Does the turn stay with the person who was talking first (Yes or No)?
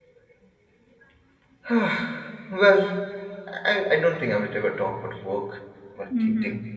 Yes